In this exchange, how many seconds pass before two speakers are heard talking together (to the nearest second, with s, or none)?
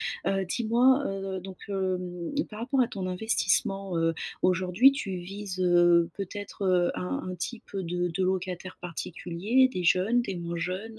none